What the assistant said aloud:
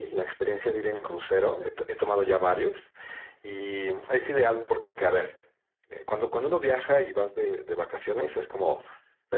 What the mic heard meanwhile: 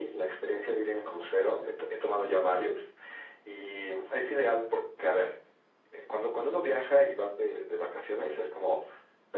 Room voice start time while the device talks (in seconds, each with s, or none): none